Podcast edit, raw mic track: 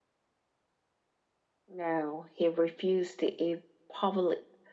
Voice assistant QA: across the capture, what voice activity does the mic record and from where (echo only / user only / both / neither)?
echo only